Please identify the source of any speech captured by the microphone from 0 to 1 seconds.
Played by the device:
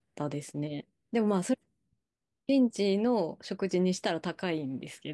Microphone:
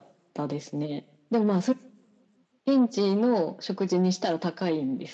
echo only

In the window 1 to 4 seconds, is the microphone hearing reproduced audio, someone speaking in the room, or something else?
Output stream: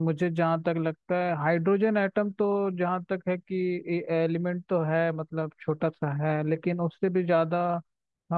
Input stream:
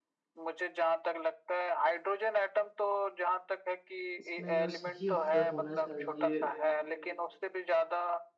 echo only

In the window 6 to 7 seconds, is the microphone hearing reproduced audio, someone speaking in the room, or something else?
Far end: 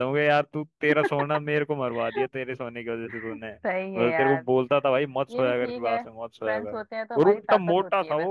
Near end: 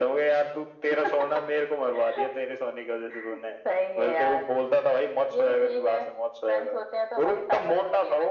echo only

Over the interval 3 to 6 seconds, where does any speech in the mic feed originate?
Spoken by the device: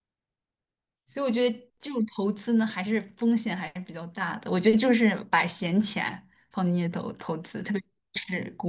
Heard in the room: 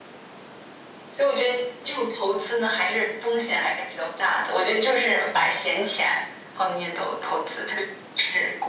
echo only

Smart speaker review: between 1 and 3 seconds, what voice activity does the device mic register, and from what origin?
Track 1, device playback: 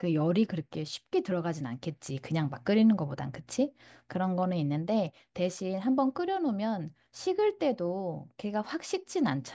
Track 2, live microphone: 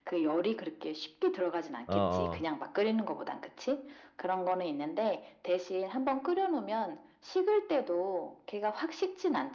both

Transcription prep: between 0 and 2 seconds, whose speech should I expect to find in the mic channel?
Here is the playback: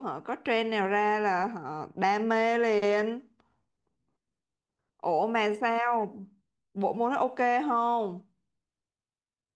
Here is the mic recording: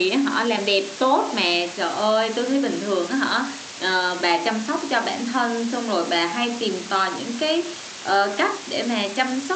user only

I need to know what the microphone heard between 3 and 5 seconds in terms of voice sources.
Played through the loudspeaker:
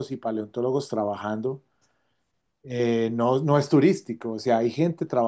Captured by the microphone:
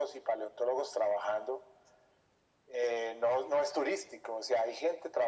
echo only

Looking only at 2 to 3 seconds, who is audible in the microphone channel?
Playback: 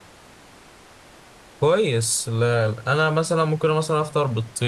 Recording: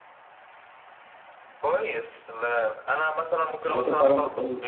echo only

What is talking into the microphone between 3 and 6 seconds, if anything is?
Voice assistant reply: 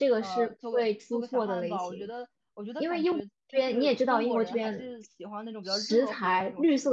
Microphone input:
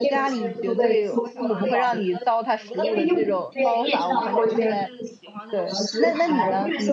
both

